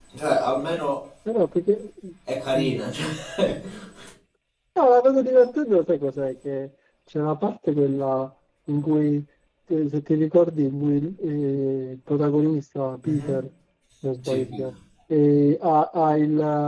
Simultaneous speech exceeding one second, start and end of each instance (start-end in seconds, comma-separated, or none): none